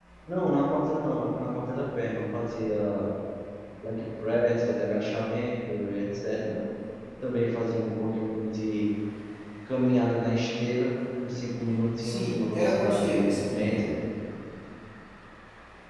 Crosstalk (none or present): present